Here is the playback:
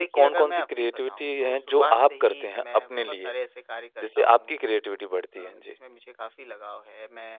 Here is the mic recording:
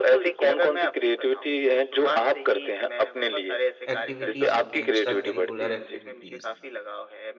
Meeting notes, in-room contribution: present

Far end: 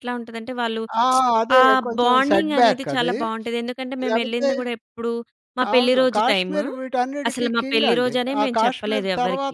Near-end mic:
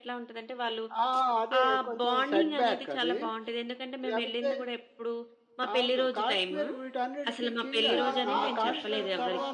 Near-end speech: present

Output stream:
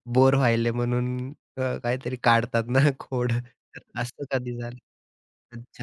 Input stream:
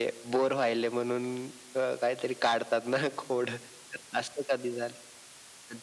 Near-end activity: none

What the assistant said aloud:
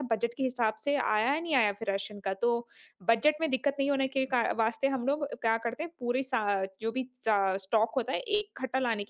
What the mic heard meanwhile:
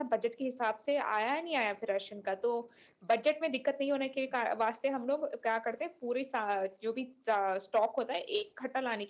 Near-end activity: none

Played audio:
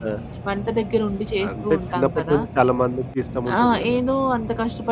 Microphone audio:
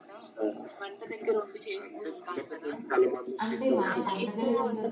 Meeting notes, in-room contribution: present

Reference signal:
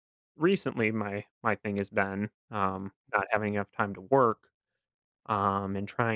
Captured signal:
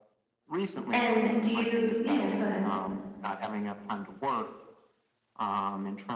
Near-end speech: present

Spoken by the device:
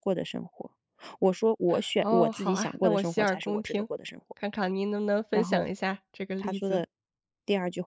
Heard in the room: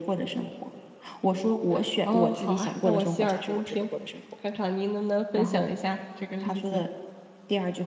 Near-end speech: none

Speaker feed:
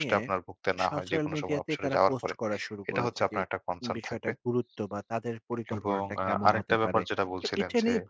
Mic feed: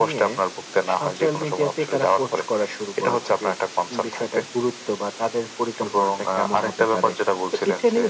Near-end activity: none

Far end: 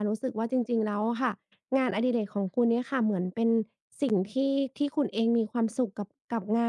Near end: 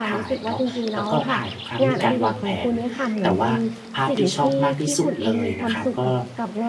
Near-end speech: present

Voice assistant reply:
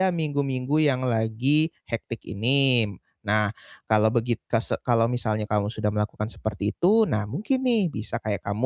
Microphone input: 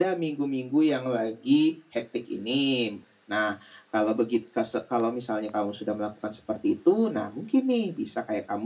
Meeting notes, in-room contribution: none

